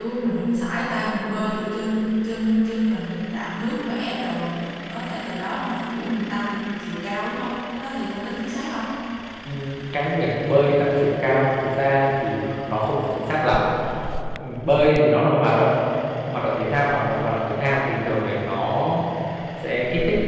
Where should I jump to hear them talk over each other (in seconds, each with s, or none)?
none